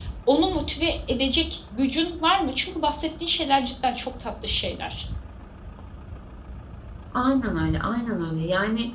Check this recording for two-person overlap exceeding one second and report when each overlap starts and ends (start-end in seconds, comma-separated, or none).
none